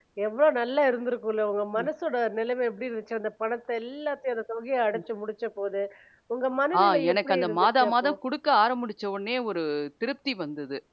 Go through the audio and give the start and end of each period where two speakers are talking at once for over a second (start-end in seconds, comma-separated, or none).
6.8-8.1